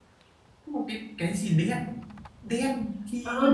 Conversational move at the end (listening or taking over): taking over